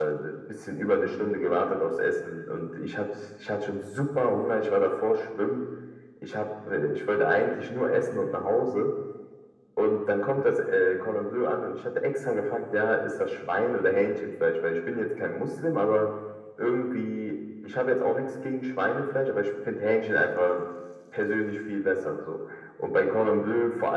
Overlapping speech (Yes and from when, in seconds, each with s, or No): No